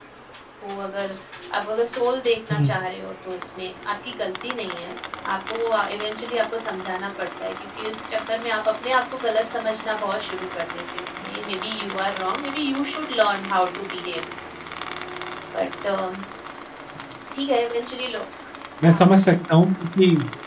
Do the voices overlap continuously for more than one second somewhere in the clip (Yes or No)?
No